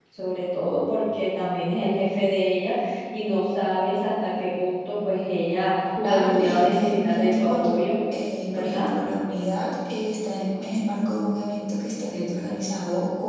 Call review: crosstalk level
present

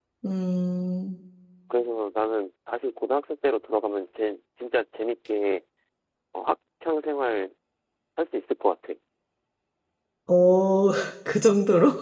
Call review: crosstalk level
none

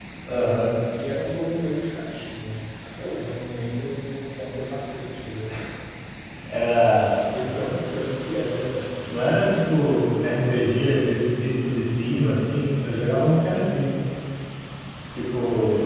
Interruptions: none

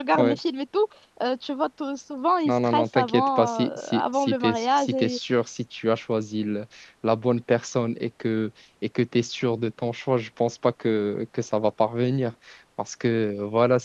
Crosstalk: present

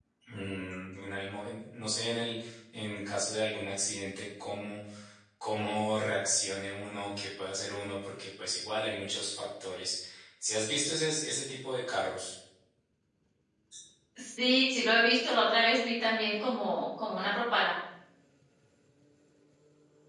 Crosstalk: none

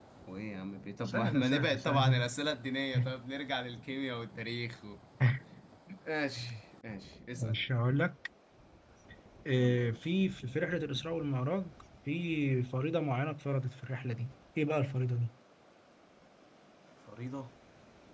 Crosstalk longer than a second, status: present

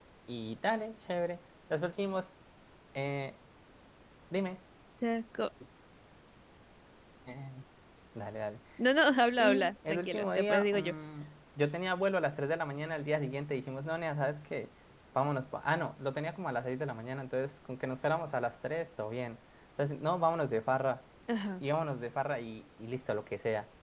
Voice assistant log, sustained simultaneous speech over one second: present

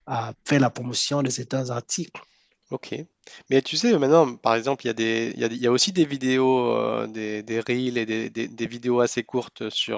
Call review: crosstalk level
none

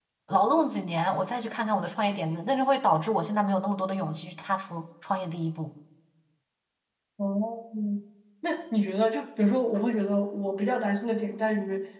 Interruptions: none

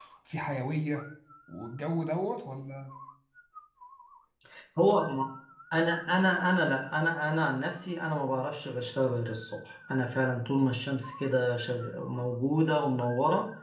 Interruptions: none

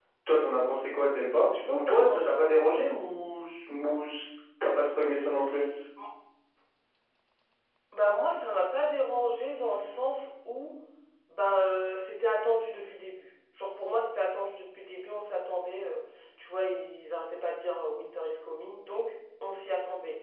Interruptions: present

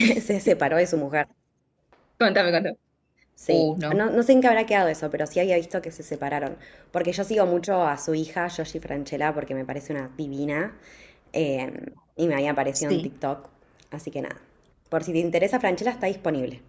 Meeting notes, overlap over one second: none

